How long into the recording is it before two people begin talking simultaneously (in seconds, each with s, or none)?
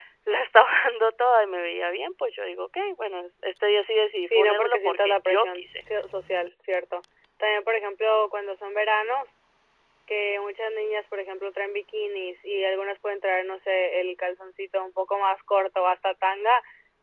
4.2 s